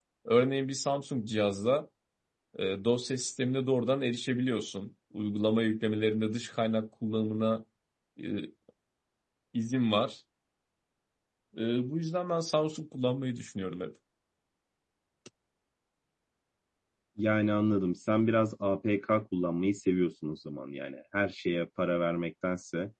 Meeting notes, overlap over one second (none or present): none